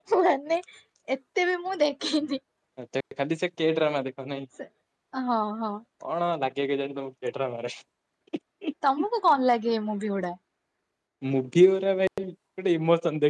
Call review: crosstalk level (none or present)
none